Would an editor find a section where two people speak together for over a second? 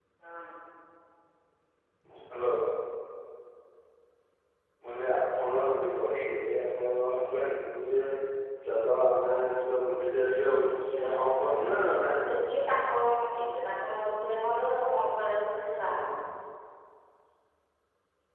Yes, from 10.6 s

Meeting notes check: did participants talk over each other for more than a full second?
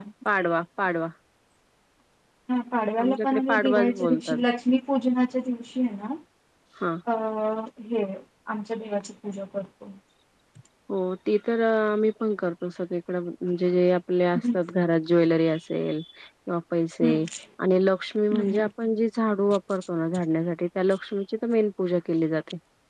Yes, from 3.0 s

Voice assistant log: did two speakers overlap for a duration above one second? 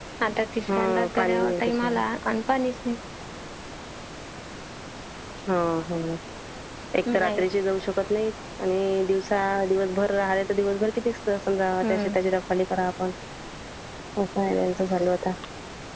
Yes, from 0.7 s

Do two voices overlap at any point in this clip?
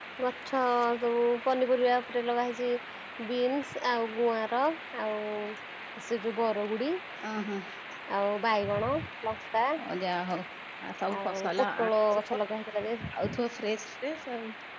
Yes, from 11.2 s

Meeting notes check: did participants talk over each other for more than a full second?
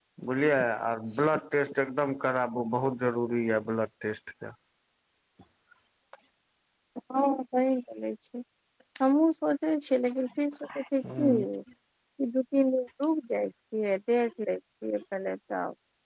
No

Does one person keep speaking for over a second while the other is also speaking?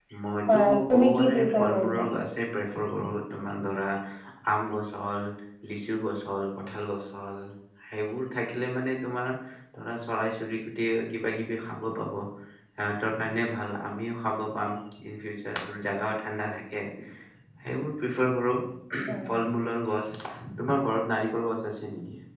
Yes, from 0.5 s

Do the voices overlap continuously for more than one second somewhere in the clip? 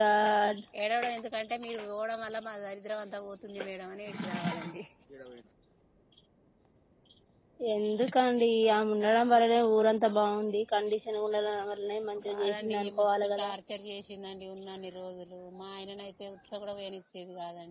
Yes, from 12.2 s

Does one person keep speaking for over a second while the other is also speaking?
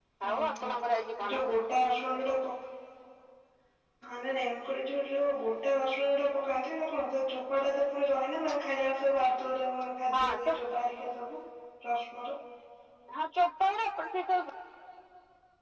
No

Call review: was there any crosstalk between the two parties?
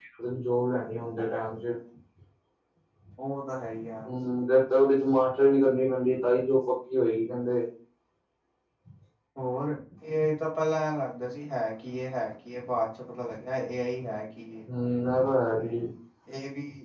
No

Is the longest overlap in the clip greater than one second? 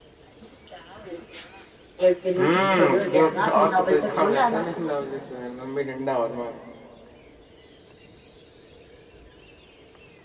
Yes, from 2.4 s

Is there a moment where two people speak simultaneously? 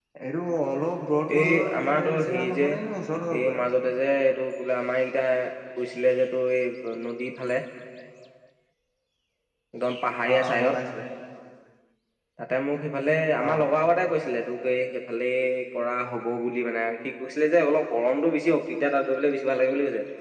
Yes, from 1.4 s

